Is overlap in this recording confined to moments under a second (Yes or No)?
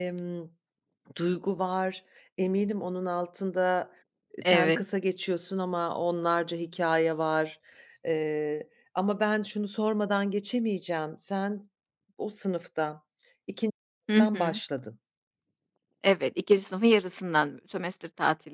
Yes